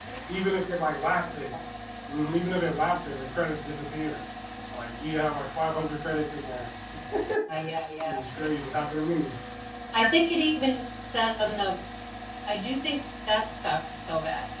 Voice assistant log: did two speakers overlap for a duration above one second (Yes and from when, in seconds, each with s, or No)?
No